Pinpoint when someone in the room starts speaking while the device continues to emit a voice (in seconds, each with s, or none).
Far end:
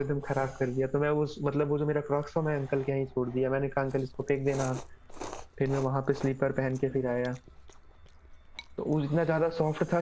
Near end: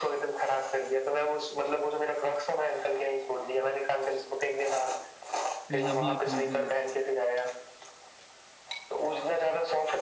5.7 s